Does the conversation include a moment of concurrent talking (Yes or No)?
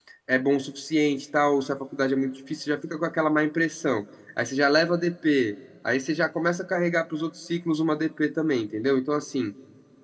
No